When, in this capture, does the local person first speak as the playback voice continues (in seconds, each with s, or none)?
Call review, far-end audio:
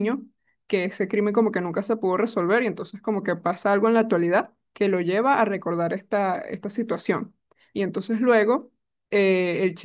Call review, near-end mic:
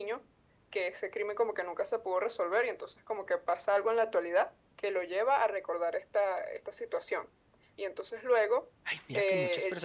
8.8 s